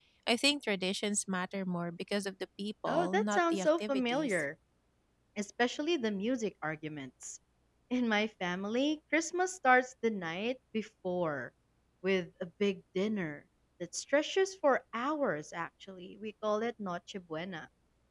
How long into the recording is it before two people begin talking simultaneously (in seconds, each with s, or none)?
2.9 s